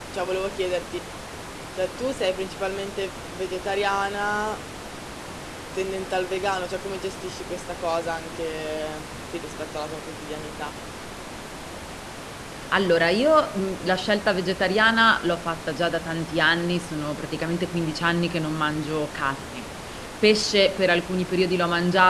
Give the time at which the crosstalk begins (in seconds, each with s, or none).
none